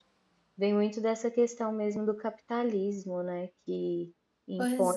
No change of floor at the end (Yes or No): Yes